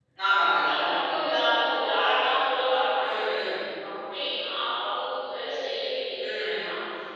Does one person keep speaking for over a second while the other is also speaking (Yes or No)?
No